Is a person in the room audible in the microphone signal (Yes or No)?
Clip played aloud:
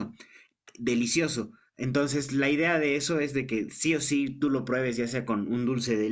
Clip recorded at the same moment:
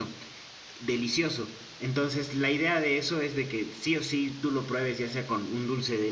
No